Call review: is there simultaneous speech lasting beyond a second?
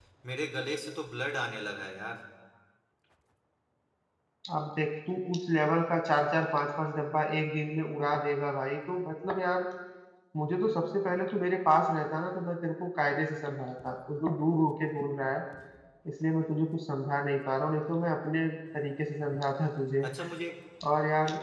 No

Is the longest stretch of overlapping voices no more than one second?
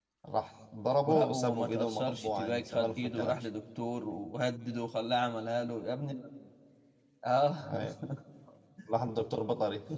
No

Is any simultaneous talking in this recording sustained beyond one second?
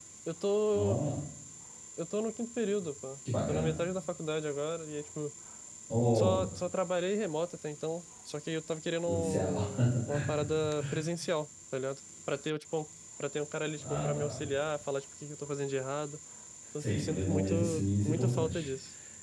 Yes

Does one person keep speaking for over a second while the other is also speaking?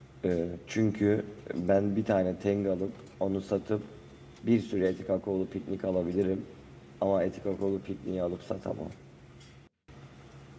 No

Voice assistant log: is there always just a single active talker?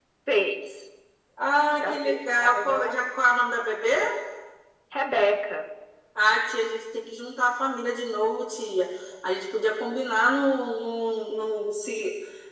No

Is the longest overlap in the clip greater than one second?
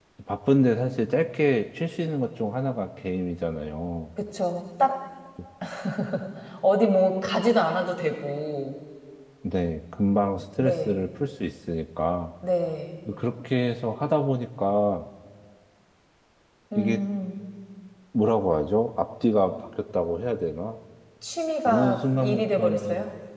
Yes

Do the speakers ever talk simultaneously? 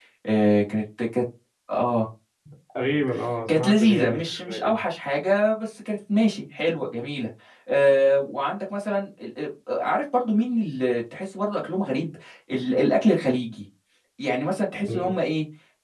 Yes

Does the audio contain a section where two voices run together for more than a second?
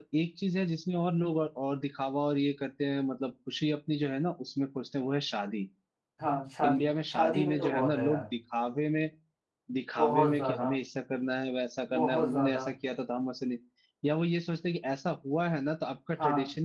Yes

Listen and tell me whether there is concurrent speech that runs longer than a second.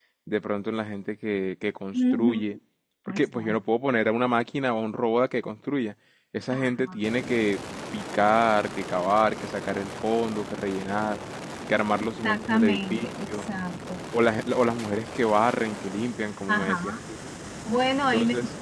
Yes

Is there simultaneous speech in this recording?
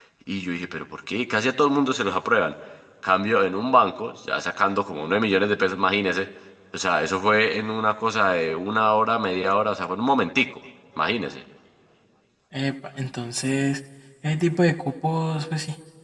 No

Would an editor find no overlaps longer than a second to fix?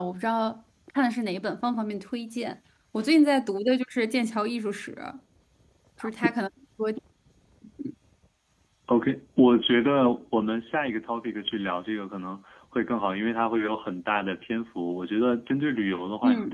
Yes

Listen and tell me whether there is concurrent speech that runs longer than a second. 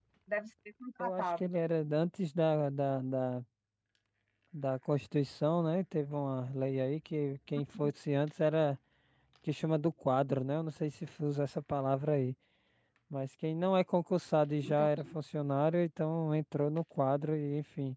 No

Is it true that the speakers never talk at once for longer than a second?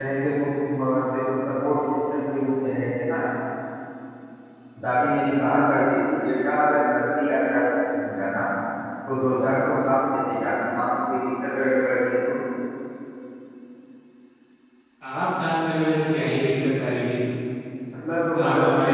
Yes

